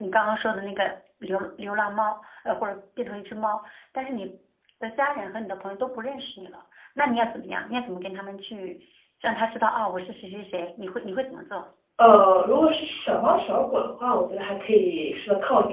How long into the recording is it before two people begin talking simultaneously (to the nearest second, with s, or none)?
none